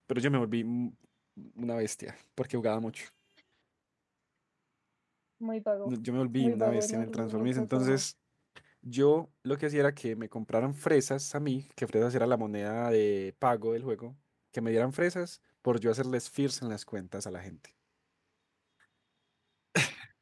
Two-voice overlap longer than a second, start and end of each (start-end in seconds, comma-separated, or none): 6.4-8.0